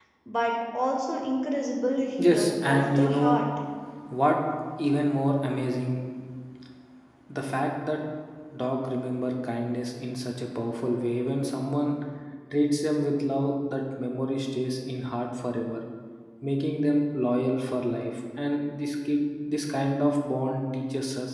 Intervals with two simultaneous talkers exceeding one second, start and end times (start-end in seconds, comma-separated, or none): 2.2-3.4